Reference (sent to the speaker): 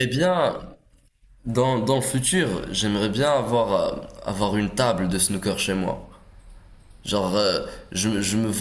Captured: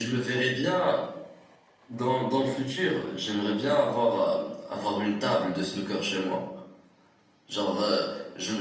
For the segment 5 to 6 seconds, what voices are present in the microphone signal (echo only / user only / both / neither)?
echo only